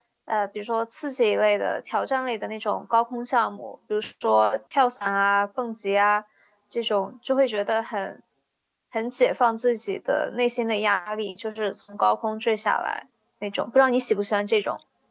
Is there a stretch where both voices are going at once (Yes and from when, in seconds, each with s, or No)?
No